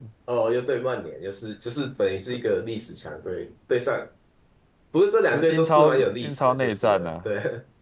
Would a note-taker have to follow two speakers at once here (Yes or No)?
Yes